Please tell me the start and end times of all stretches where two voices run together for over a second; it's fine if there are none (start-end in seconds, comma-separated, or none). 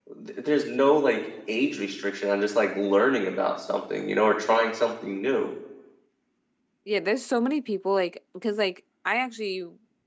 none